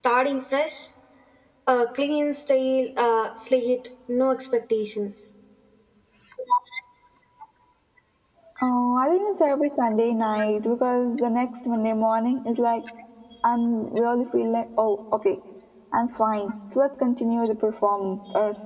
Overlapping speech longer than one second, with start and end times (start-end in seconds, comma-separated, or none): none